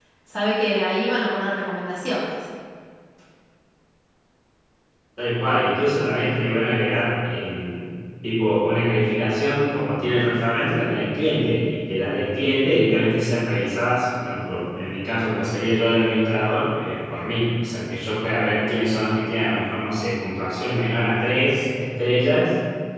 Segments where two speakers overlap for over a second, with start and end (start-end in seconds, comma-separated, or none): none